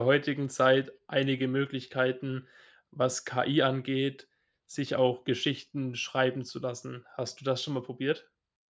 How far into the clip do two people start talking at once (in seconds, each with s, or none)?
none